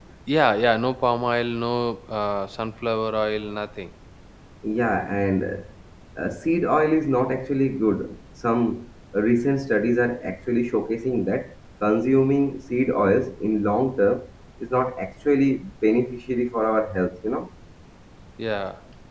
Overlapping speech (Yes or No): No